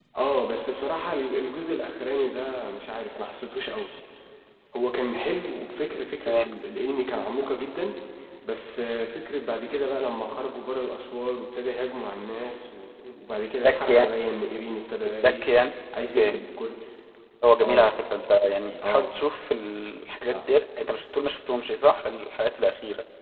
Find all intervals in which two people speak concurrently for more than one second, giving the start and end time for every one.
none

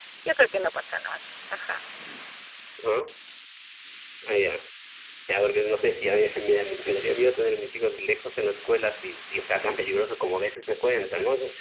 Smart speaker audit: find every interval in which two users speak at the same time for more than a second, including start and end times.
none

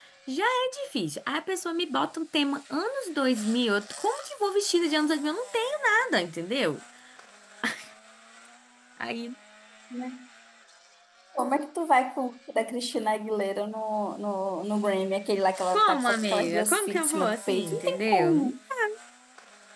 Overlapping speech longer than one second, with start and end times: 15.7-18.3

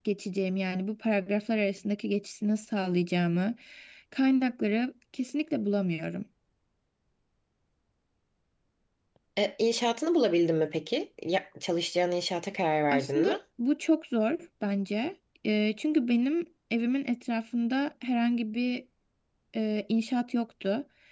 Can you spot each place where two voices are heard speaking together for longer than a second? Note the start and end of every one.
none

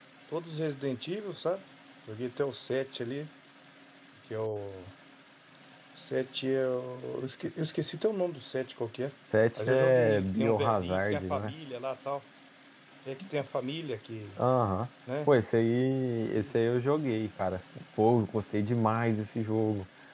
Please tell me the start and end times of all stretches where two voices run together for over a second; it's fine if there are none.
9.6-11.5

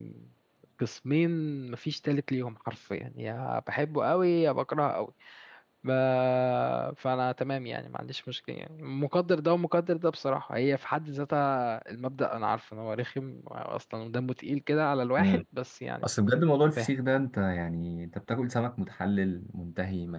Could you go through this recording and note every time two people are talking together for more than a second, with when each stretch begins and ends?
none

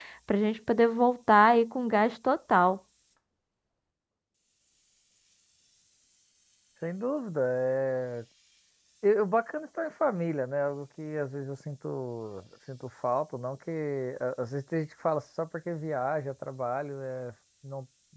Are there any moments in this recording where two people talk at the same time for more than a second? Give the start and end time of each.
none

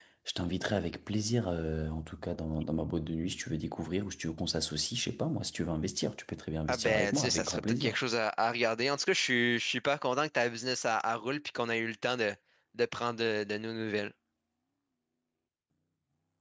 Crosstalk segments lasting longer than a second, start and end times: 6.7-8.0

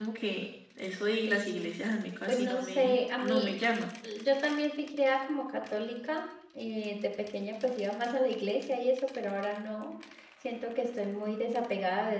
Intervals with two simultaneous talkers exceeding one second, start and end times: 2.3-3.5

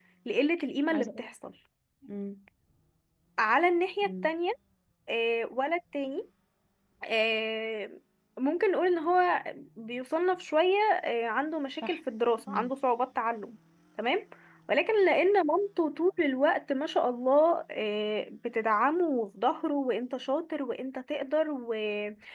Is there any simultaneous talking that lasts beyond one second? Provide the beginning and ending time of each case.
none

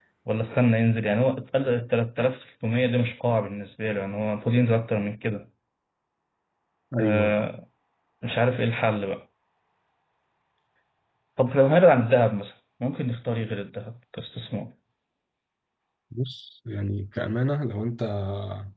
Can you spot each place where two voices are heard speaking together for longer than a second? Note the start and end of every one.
none

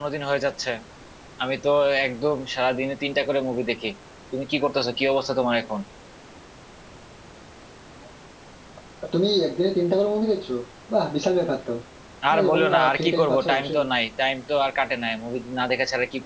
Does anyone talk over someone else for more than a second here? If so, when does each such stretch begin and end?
12.3-13.9

